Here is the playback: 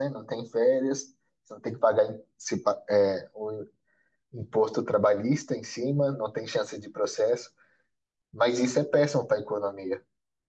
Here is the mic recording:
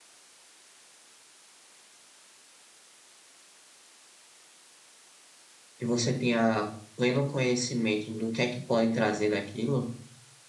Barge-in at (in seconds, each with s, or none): 5.8 s